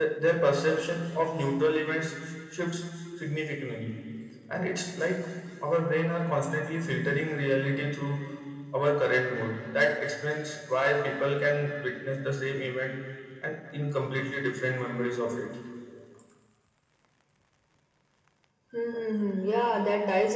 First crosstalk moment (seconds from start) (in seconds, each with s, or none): none